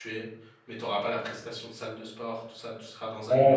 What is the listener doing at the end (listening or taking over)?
taking over